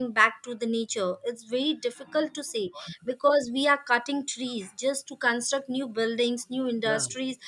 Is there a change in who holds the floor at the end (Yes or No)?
No